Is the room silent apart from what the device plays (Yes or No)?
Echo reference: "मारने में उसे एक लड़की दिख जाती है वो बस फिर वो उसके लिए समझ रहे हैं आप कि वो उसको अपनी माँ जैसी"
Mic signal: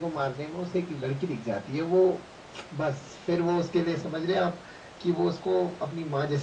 Yes